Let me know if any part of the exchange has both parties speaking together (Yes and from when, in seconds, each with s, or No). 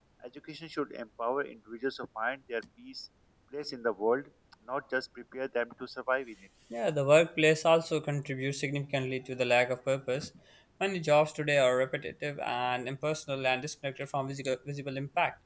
No